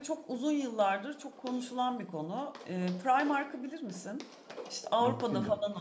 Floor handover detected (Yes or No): No